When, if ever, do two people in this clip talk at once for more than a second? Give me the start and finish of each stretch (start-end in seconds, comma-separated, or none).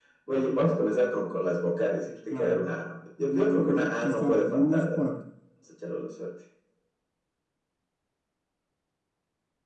3.3-5.1